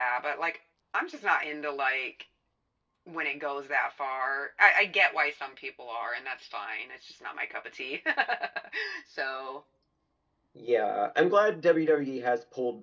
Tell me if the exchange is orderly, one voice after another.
Yes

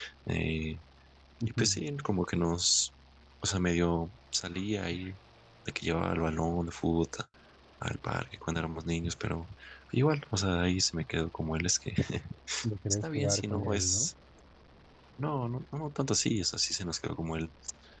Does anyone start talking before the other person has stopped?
Yes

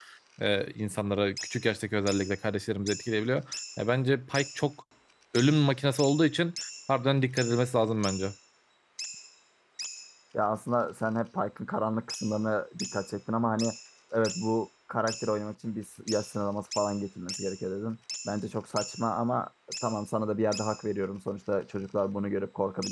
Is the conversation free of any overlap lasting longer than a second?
Yes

